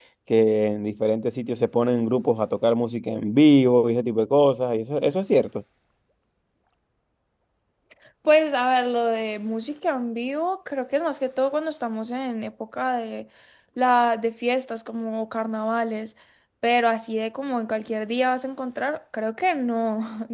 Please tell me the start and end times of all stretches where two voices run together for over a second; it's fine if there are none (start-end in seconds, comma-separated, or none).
none